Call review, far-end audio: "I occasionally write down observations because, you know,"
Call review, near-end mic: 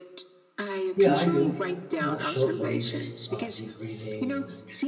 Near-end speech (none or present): present